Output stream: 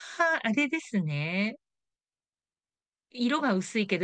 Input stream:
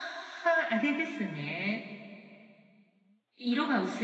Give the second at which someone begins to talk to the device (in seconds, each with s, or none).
none